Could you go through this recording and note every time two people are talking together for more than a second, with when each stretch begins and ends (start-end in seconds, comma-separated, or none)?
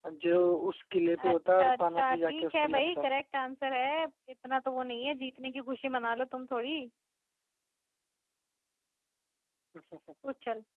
1.3-3.0